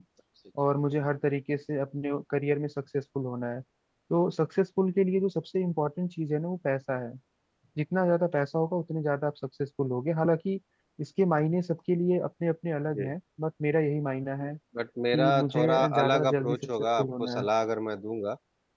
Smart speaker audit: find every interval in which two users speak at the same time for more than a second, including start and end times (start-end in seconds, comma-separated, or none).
15.1-17.4